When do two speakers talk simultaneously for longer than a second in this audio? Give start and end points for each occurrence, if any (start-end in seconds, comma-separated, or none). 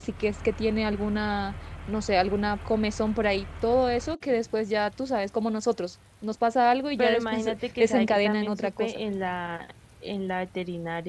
7.0-9.0